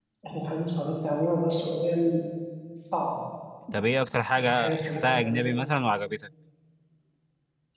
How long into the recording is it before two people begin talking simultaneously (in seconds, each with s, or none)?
4.4 s